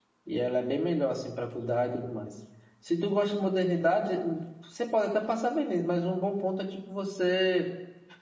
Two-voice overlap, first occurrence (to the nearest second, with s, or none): none